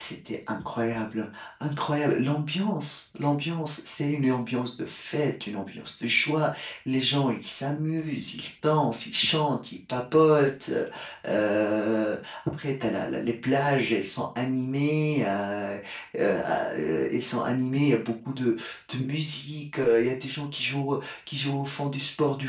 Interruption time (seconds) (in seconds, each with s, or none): none